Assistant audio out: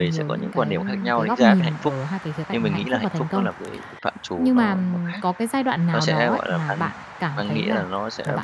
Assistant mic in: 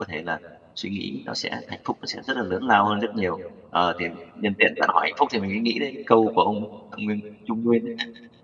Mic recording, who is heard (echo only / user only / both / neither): user only